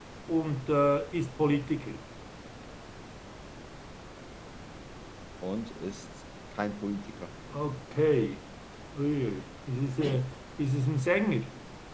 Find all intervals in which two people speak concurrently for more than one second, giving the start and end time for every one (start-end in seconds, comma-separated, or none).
none